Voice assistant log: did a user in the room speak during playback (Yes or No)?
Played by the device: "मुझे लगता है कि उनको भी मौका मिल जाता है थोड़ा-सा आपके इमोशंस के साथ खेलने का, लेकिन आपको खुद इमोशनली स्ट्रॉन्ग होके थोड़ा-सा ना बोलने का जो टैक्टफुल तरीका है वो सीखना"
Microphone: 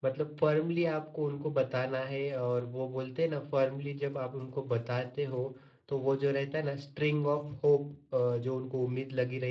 Yes